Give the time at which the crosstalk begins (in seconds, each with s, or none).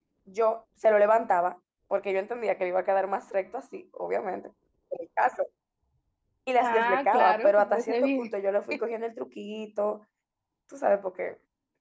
6.6 s